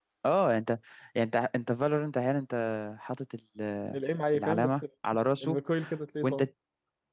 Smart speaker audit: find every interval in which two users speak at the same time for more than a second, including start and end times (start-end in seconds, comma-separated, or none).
none